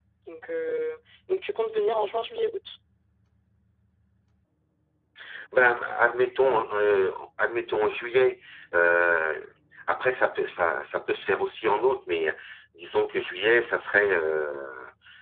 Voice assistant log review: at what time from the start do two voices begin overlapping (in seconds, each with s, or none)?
none